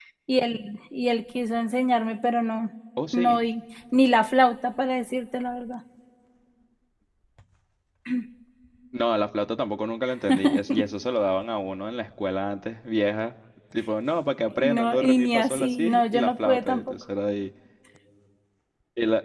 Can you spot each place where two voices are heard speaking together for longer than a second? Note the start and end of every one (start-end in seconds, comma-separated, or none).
14.6-16.9